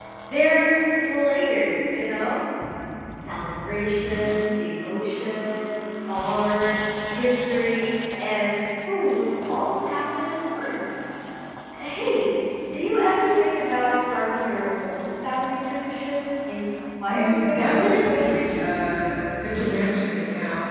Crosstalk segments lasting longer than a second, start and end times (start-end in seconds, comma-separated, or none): 17.1-18.8